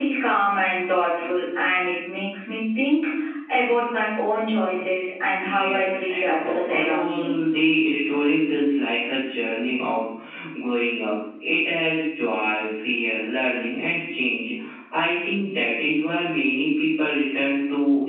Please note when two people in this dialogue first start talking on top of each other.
5.3 s

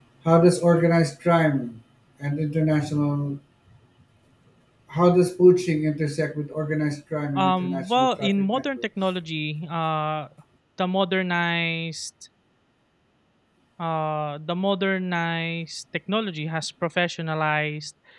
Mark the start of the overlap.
7.3 s

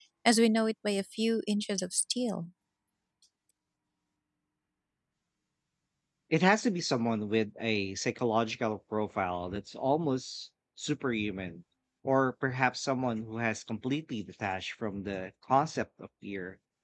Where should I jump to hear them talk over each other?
none

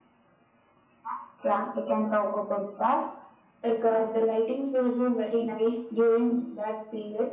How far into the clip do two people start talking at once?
none

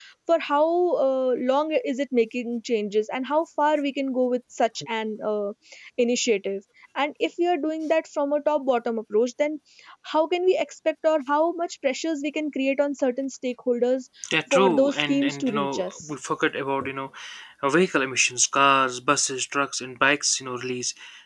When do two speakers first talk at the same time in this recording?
14.5 s

